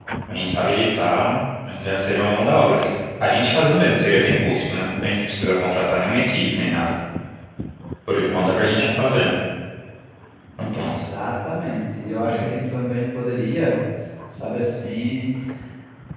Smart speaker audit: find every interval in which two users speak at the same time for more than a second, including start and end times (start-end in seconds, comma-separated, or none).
none